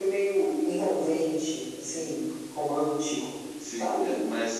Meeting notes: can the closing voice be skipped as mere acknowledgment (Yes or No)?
No